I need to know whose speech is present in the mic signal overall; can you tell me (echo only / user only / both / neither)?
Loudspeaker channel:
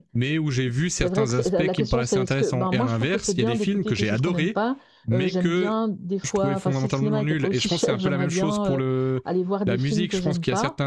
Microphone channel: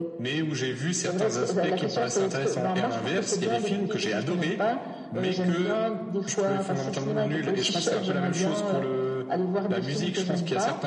echo only